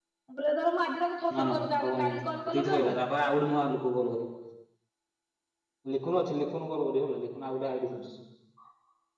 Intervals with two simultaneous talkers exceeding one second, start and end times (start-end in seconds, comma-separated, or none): 1.4-2.9